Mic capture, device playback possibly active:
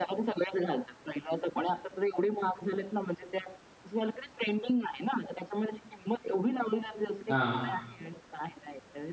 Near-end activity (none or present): present